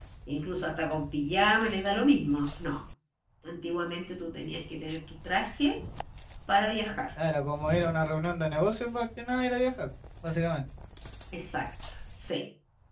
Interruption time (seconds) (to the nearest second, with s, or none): none